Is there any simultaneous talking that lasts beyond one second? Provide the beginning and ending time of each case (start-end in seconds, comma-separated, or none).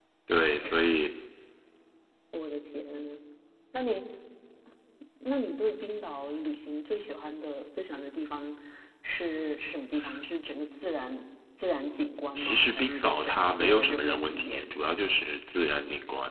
12.3-14.6